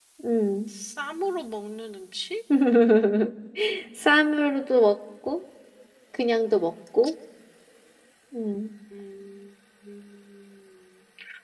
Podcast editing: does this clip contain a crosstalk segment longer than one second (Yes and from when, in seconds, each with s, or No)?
No